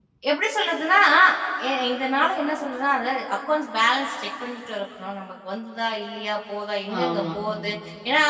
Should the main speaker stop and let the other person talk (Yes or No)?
No